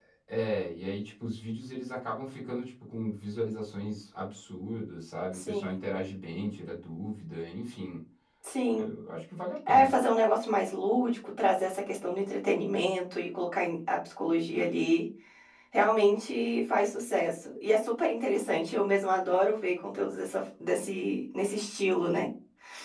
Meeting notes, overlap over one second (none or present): none